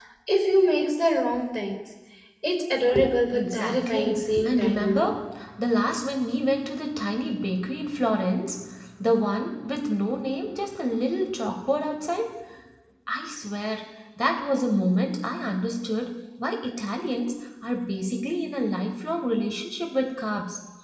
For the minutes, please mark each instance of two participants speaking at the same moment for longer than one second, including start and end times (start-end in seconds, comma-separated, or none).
3.3-5.1